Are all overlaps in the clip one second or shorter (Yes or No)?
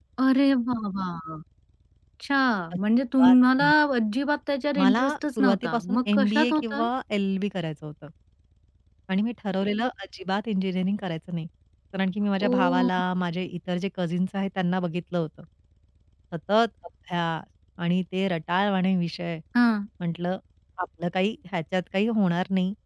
No